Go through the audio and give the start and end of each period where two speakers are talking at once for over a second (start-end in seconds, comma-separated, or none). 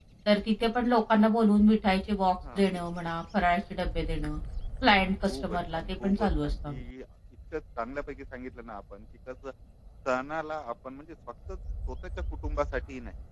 5.3-6.8